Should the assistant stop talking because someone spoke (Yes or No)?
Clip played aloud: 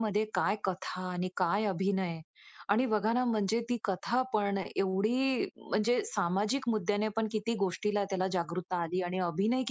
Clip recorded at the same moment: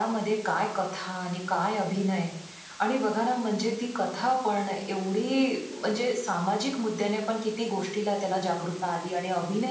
No